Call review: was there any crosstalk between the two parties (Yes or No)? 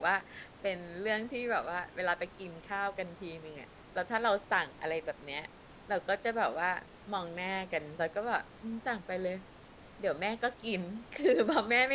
No